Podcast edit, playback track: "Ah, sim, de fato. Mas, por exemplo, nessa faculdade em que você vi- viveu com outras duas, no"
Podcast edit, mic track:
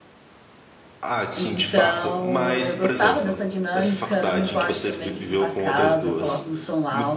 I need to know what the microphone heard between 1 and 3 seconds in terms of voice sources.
both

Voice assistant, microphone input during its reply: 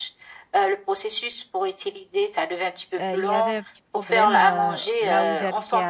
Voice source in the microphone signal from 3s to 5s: both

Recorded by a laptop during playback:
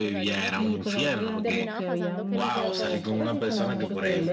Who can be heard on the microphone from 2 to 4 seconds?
both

